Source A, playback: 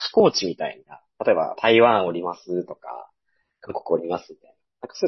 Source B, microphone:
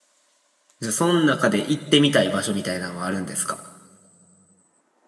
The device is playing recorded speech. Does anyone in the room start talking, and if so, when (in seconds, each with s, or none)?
0.8 s